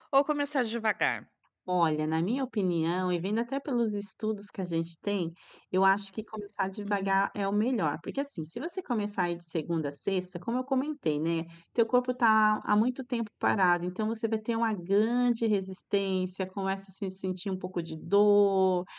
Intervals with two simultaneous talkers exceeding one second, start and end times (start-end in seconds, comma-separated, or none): none